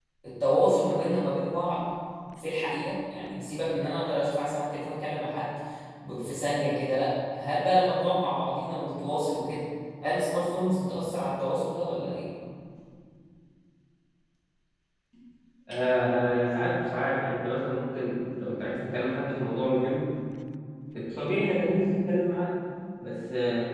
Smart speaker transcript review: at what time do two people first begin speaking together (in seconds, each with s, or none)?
none